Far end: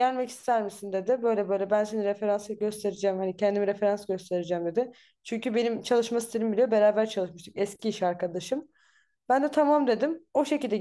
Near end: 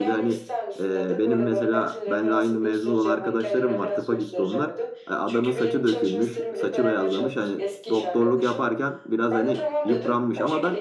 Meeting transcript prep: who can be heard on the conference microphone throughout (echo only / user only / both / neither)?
both